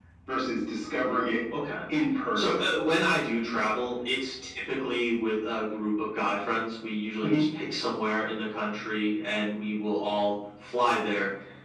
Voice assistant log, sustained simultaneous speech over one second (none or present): none